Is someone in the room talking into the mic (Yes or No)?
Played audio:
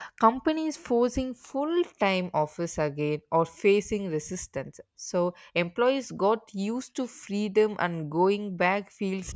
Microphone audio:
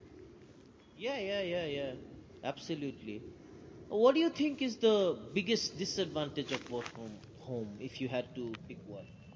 Yes